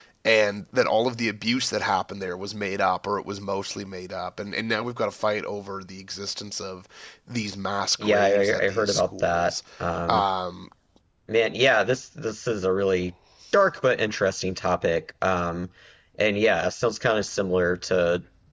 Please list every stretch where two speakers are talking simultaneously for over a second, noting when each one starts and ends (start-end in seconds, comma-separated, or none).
8.0-9.5